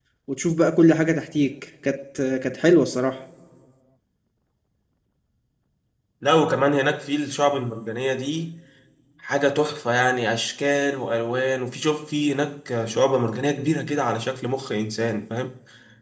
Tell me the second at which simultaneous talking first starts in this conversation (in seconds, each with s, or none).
none